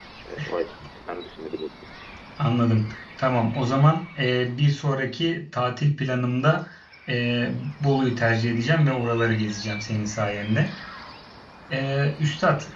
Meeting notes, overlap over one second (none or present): none